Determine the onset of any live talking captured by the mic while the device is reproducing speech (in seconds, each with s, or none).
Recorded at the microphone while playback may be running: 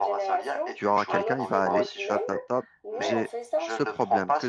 0.7 s